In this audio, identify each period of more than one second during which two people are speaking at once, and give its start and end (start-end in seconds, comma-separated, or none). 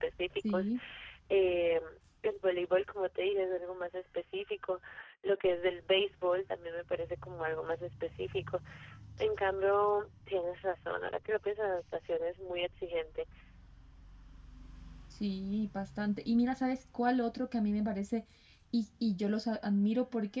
none